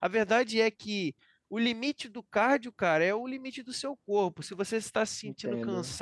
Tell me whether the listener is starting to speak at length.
No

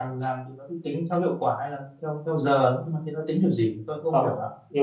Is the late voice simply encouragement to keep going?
No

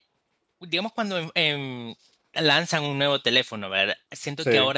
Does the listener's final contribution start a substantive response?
No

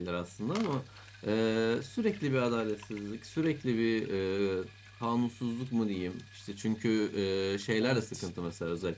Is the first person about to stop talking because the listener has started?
No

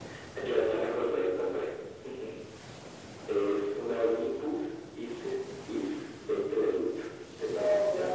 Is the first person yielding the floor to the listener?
Yes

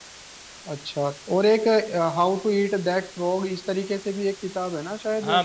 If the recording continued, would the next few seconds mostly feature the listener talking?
Yes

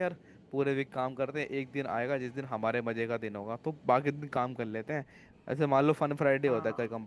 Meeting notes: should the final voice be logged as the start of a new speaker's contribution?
No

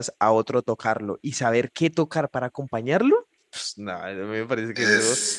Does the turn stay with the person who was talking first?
Yes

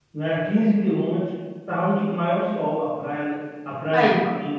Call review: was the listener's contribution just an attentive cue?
Yes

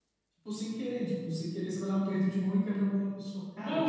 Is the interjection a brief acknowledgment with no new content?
Yes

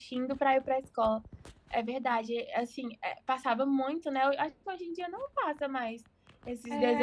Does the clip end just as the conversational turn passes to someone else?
Yes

